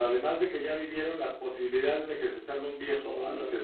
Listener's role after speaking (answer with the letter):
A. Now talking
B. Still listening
B